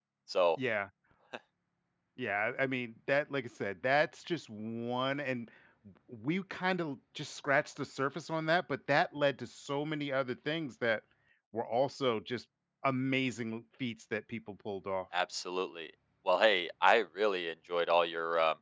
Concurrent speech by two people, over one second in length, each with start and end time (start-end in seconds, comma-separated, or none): none